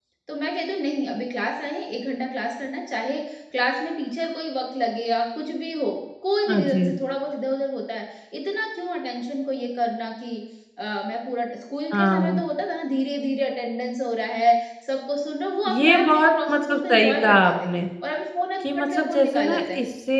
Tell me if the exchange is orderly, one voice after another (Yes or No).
No